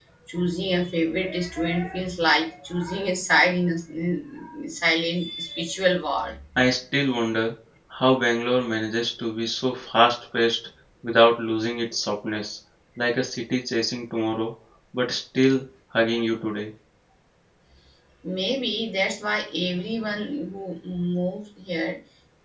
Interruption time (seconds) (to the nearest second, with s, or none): none